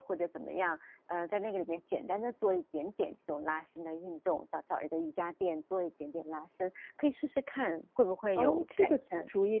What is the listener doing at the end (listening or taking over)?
taking over